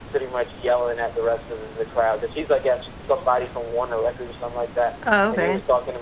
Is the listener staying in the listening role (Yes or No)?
Yes